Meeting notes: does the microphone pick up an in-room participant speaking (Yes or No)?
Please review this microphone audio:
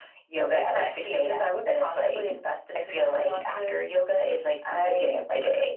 No